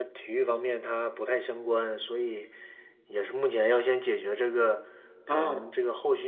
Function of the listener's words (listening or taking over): listening